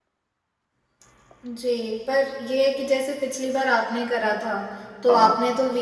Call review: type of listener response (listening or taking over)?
listening